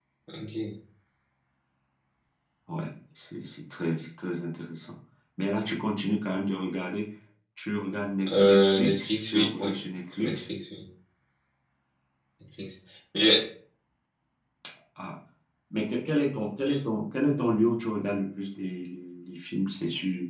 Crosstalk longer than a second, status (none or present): present